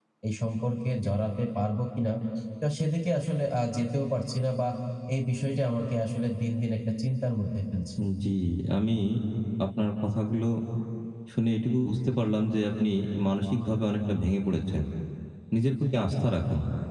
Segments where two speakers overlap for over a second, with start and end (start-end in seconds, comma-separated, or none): none